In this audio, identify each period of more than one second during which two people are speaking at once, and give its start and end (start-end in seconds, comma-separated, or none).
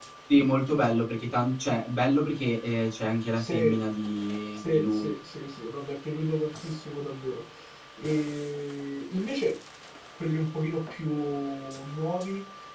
none